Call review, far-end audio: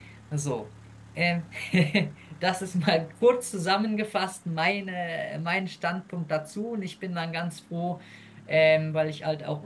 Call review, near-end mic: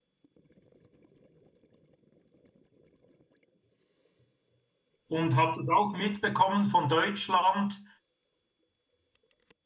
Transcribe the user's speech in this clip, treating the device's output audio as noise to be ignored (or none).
und habe das auch mitbekommen von Deutschland